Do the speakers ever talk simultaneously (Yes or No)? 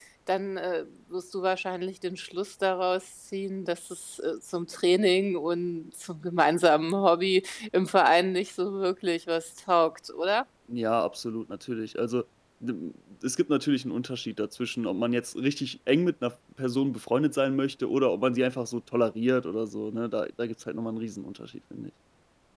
No